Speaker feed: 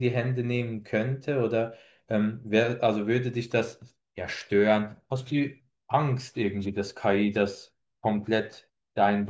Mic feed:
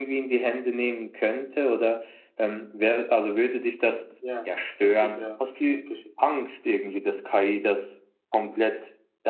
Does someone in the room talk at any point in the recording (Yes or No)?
Yes